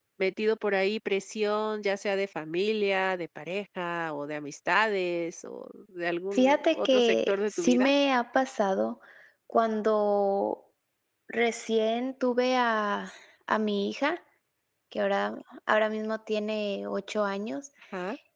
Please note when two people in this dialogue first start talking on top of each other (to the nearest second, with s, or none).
6 s